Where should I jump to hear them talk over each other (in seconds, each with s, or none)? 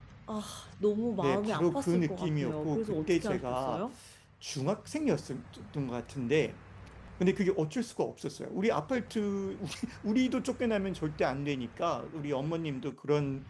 1.2 s